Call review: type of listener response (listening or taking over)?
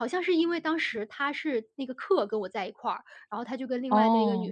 listening